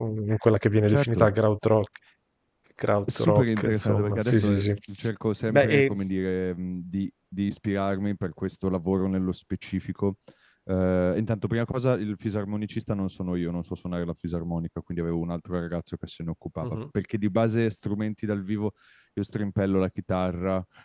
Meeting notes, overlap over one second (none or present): present